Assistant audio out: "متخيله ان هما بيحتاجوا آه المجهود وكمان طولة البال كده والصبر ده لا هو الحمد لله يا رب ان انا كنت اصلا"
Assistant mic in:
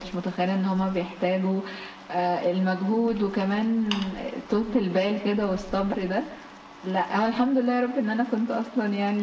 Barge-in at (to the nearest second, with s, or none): none